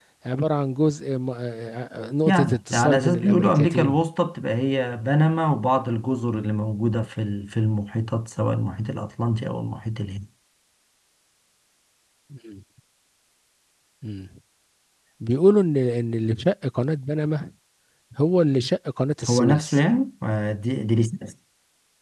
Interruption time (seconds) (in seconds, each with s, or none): 2.2 s